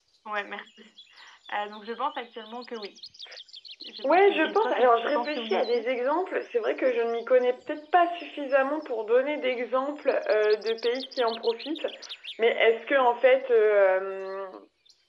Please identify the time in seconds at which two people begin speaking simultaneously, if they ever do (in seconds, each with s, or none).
4.0 s